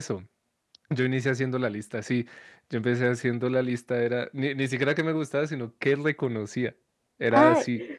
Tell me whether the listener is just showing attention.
No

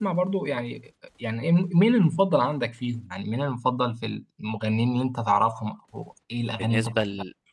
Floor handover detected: Yes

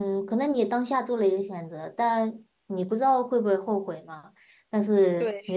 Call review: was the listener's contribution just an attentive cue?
Yes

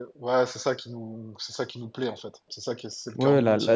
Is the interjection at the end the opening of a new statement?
Yes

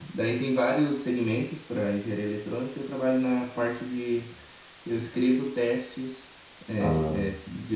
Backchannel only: Yes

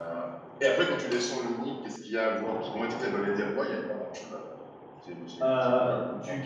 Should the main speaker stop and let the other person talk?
Yes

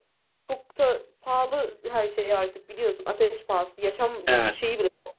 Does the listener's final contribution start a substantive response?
No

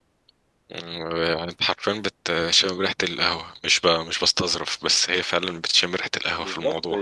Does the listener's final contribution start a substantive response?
Yes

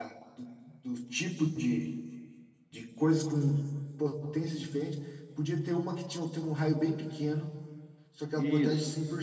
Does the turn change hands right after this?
No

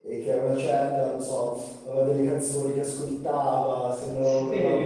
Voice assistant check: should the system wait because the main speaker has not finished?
Yes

